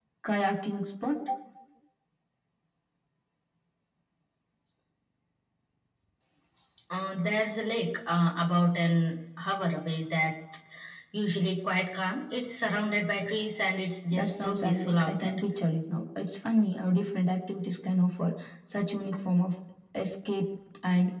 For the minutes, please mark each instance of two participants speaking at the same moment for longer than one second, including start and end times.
14.1-15.4

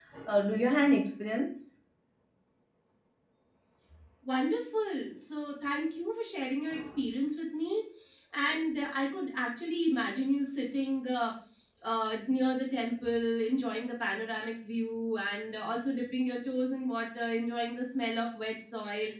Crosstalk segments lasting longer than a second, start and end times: none

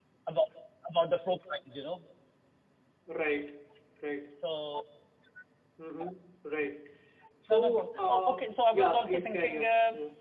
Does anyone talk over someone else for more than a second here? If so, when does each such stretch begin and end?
7.5-9.7

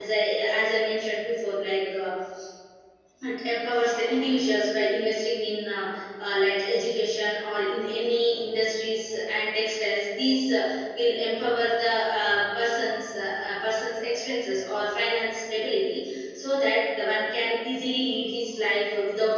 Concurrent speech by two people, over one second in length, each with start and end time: none

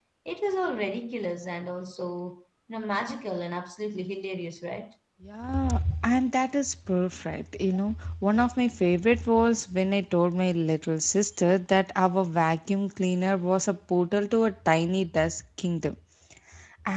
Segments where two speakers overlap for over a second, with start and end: none

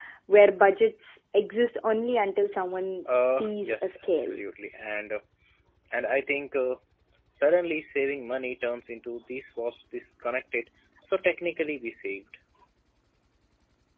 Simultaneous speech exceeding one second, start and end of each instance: 3.1-4.3

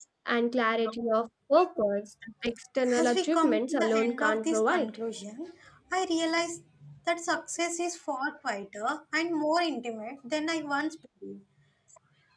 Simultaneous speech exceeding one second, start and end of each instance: 3.0-4.9

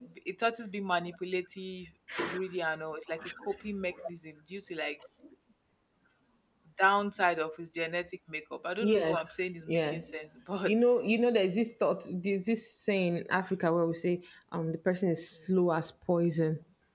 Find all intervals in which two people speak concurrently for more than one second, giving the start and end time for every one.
8.8-10.0

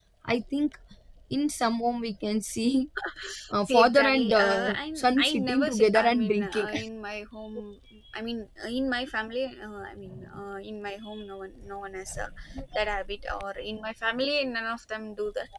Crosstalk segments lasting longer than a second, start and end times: 3.7-6.7

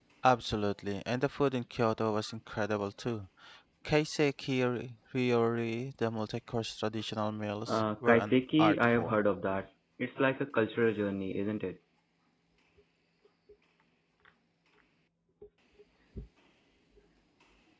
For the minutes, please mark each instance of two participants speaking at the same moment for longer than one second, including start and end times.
7.7-9.2

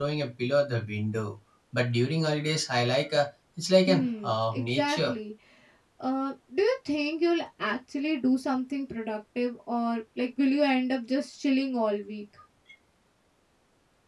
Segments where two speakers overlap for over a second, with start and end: 3.9-5.1

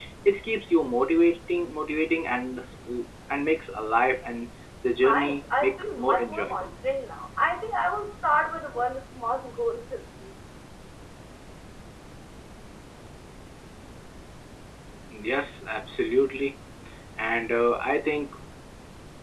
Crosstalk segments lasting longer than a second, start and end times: 5.0-6.7

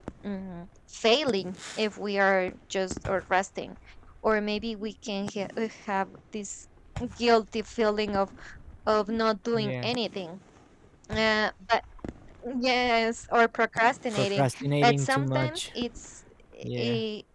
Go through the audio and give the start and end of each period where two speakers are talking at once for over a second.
14.1-15.7

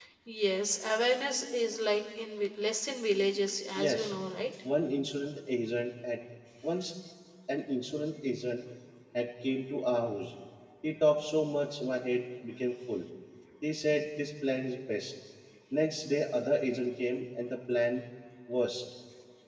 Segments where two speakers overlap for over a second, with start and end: none

